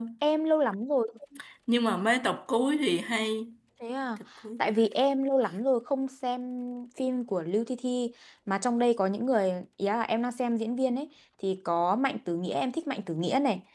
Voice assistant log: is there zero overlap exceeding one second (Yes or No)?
Yes